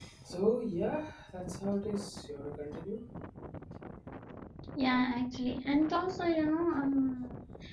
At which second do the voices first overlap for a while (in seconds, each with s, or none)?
none